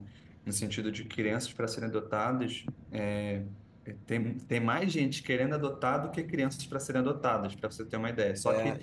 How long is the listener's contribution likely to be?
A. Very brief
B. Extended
B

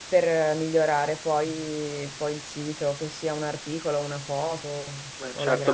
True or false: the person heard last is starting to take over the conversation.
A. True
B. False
A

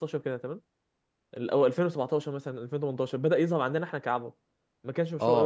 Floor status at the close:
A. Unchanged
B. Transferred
B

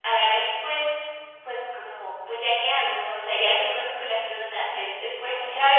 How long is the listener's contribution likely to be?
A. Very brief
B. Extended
B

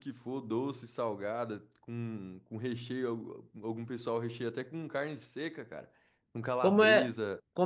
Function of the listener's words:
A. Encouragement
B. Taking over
B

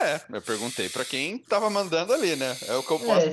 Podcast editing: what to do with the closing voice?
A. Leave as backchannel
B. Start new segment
B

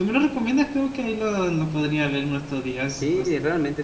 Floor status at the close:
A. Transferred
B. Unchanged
A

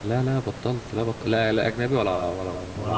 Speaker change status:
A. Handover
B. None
B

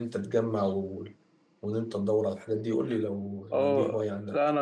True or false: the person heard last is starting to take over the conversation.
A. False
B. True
B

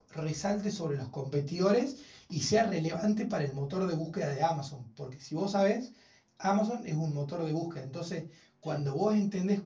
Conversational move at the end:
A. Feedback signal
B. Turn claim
A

